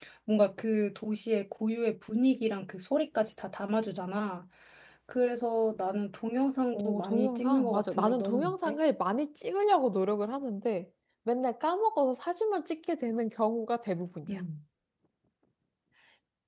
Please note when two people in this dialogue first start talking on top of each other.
6.7 s

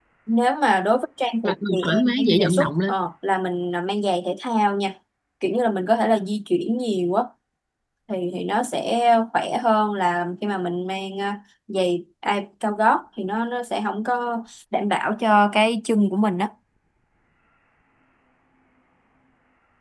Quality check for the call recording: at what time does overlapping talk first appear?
1.4 s

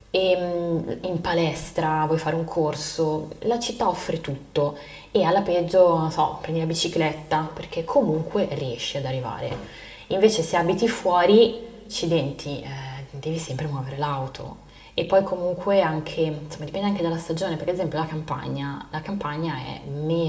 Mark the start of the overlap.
none

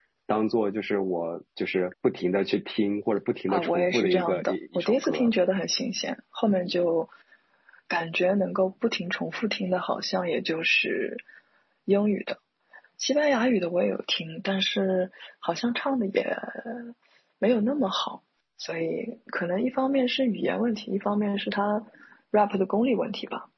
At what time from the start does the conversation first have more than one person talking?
3.5 s

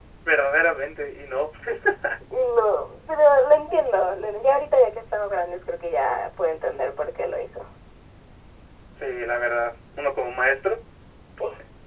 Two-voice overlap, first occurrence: none

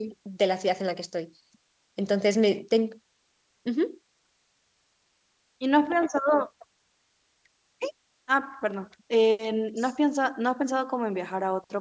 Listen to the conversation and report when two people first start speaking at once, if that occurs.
none

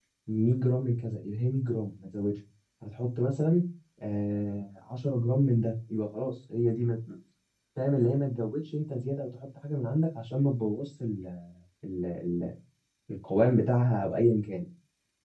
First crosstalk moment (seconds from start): none

